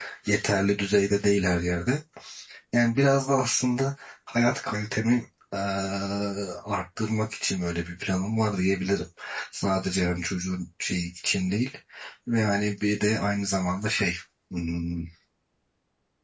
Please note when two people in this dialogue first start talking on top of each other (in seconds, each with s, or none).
none